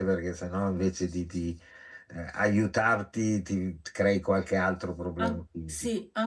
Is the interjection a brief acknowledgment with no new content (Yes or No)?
No